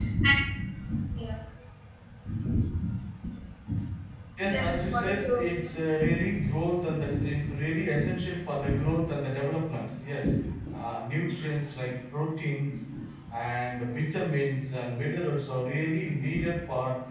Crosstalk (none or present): present